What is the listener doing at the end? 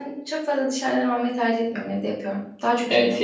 taking over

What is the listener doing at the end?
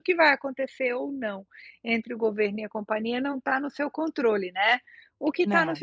listening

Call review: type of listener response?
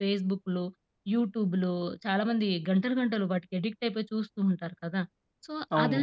listening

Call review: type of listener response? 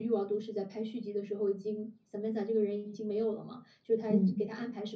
listening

